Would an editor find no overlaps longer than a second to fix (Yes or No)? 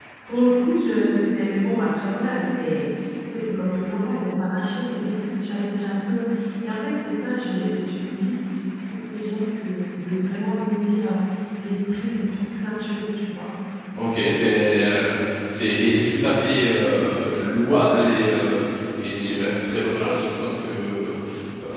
Yes